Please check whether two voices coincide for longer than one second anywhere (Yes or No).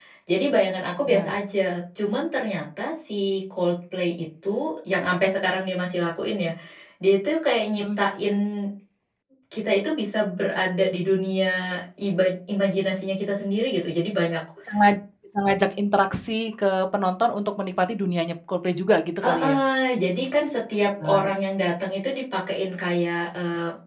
No